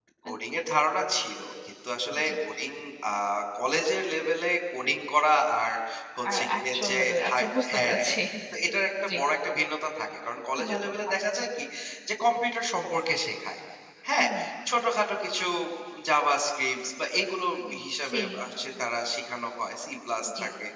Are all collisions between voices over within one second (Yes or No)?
No